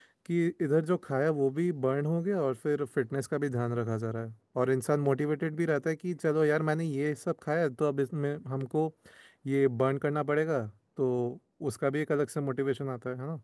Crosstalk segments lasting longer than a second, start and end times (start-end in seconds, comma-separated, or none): none